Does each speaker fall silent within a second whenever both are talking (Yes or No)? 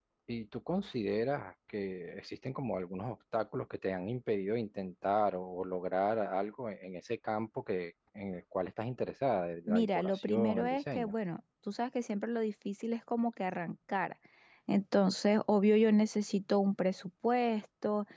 No